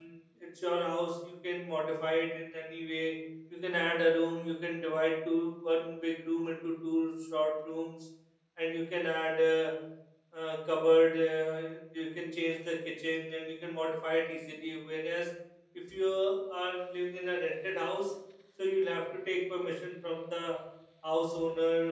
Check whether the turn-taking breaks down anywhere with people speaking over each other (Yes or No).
No